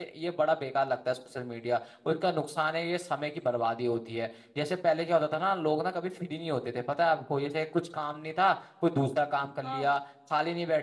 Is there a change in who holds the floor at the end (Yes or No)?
No